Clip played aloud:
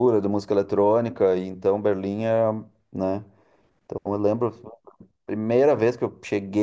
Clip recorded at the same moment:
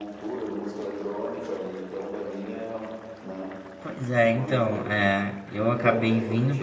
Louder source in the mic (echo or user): user